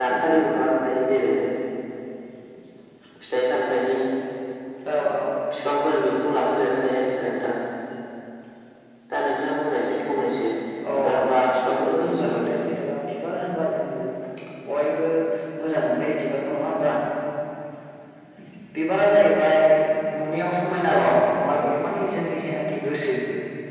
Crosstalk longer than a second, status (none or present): present